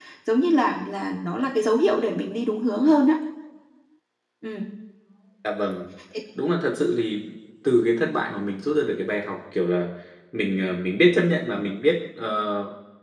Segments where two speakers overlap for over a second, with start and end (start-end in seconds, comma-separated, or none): none